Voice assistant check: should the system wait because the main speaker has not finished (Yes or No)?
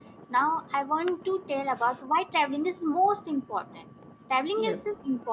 Yes